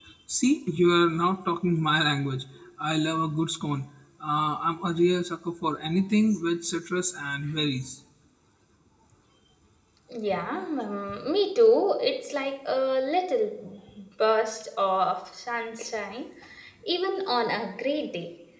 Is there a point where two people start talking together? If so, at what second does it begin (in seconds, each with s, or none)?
none